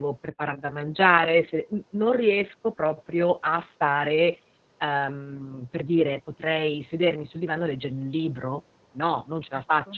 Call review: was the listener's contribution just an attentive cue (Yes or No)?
Yes